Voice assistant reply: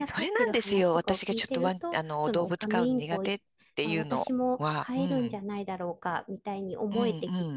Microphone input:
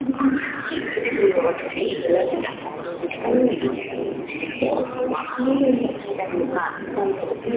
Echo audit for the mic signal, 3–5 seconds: echo only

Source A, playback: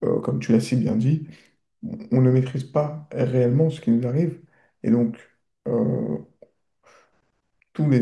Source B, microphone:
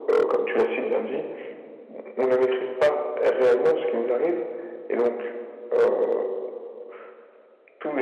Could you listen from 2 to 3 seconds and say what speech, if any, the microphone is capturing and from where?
echo only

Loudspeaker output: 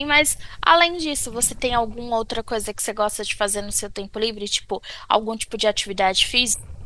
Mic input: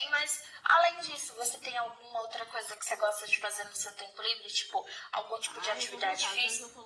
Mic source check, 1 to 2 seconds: echo only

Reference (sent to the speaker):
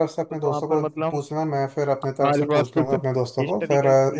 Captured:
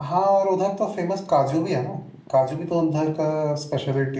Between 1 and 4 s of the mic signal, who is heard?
user only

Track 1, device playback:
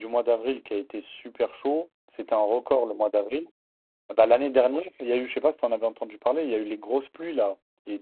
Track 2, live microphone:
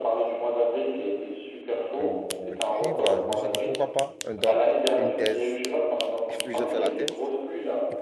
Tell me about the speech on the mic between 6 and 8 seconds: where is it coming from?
both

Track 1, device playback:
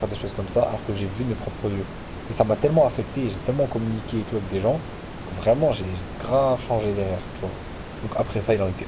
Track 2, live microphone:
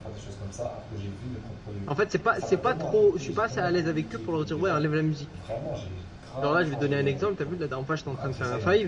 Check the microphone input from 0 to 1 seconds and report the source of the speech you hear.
echo only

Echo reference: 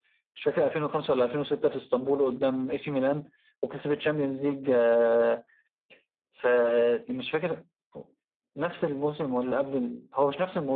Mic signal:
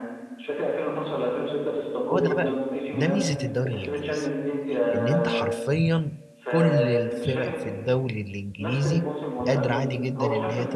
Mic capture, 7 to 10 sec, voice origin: both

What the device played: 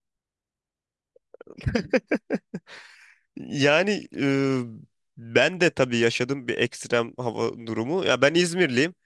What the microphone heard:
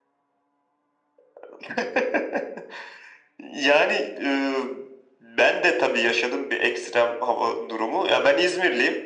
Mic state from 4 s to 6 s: echo only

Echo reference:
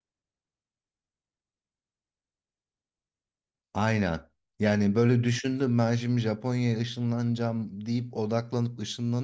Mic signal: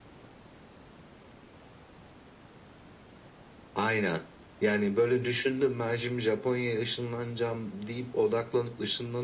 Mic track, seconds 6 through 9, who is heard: echo only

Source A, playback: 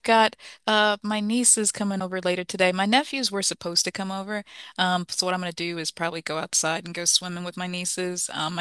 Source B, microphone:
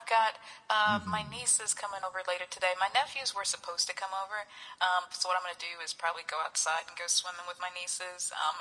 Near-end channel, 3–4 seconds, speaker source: echo only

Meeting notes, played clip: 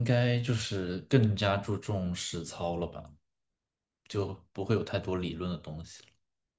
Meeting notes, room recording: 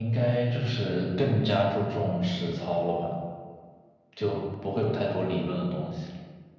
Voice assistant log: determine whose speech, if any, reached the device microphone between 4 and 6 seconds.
echo only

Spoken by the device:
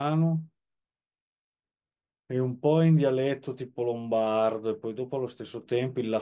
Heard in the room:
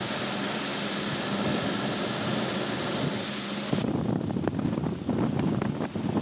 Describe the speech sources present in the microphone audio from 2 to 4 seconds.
neither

